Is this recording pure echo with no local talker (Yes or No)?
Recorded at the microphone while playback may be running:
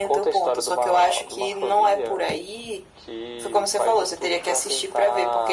Yes